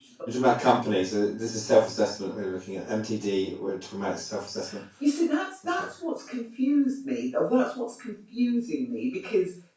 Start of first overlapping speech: none

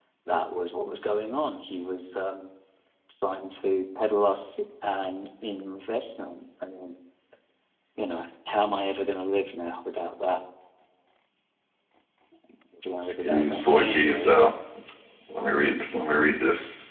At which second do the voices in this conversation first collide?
13.2 s

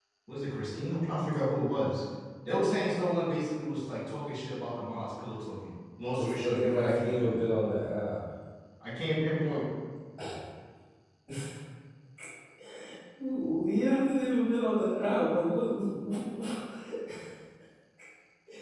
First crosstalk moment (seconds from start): 6.2 s

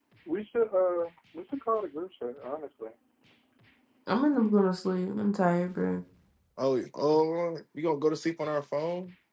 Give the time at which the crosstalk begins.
none

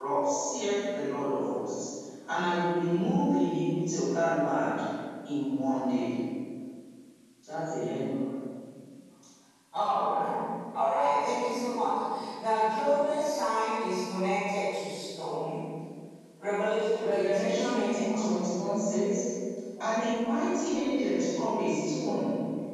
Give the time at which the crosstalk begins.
17.0 s

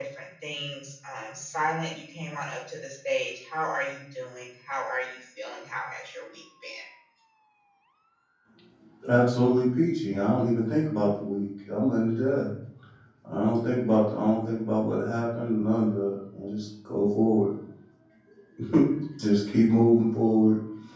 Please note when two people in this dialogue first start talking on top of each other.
none

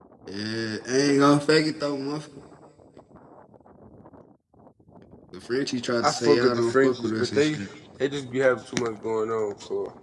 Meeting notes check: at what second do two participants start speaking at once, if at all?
6.0 s

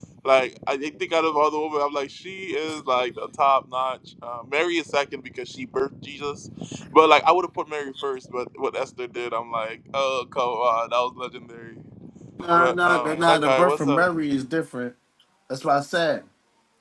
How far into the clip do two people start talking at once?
12.5 s

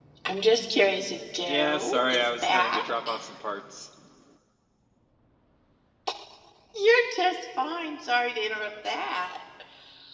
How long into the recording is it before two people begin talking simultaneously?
1.5 s

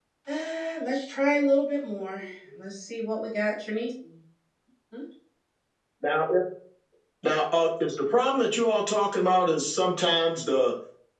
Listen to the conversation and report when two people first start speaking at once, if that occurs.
none

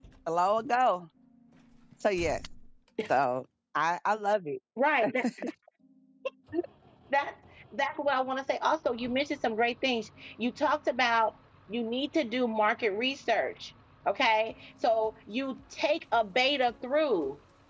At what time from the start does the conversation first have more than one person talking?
none

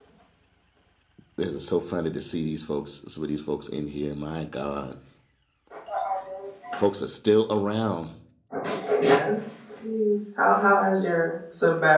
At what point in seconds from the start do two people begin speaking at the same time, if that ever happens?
none

